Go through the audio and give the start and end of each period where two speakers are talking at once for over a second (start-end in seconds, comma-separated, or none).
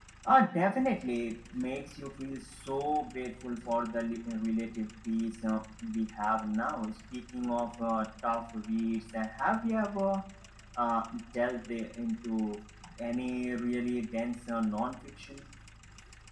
none